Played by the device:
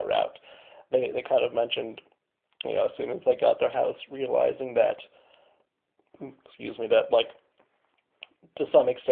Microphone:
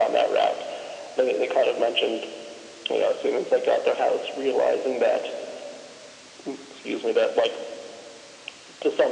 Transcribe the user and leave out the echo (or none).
none